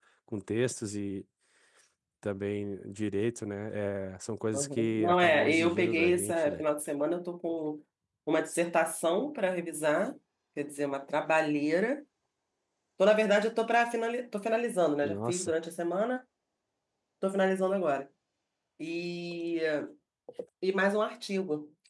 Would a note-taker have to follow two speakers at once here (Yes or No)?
Yes